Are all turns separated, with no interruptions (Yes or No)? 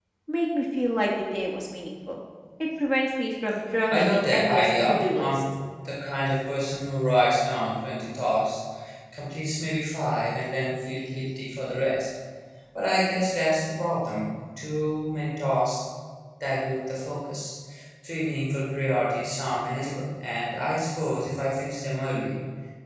No